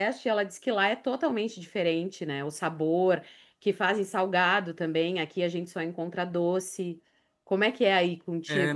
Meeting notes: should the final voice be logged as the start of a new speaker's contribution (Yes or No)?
Yes